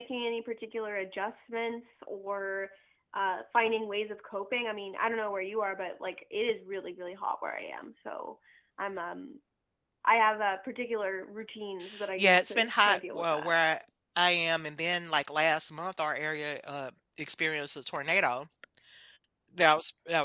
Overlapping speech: Yes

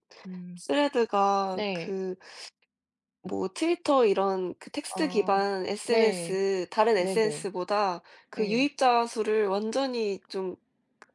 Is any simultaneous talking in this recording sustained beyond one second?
No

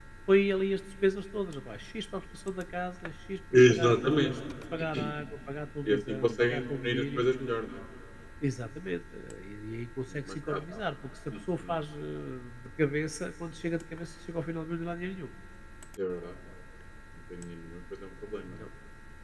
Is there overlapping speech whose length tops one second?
Yes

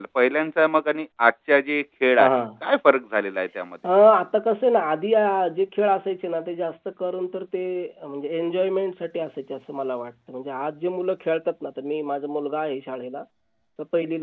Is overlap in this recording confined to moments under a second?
Yes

